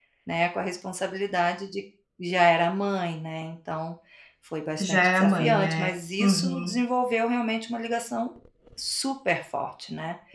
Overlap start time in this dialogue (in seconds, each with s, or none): 4.8 s